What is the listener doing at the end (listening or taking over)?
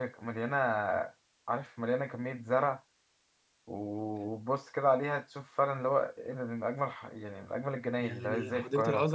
taking over